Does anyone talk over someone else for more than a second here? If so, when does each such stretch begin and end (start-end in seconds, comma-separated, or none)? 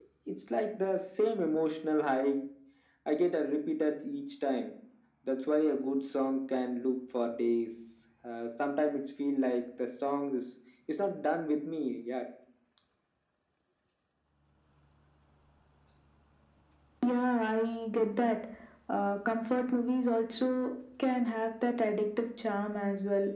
none